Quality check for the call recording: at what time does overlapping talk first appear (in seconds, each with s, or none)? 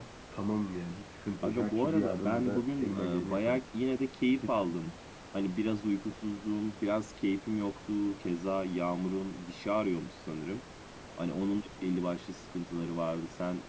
1.4 s